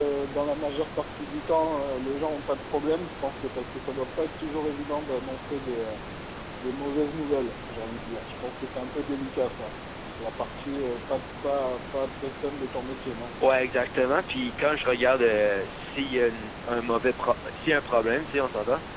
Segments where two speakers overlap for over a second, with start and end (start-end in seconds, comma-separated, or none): none